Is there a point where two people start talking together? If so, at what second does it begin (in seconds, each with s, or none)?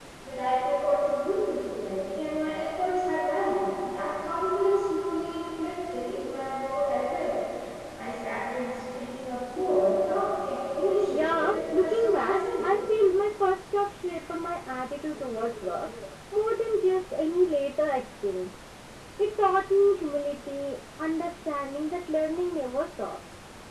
11.1 s